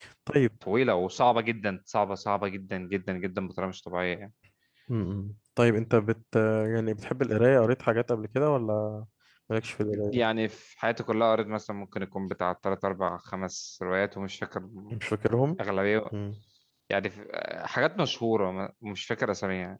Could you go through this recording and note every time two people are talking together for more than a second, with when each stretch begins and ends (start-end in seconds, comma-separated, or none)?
none